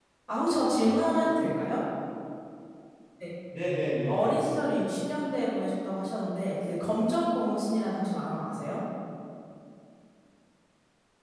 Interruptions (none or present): present